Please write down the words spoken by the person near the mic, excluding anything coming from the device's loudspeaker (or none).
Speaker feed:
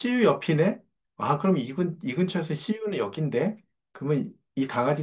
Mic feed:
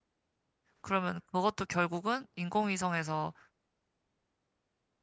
그러면 그것도 결국은 인공위성에서